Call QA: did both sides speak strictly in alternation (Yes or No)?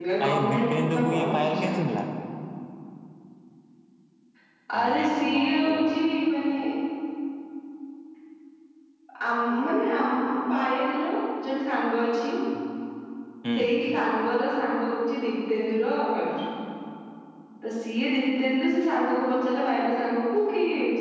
No